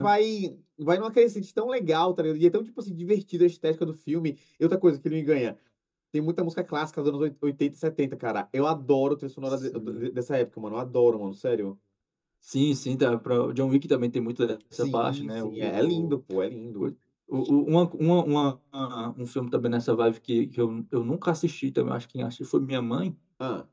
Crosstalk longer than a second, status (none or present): present